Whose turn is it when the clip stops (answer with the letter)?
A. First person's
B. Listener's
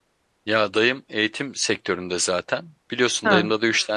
A